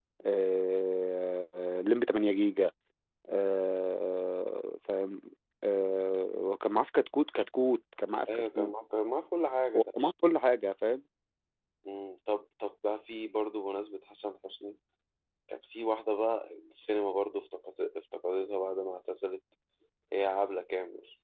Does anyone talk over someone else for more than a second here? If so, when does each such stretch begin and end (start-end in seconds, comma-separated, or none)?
none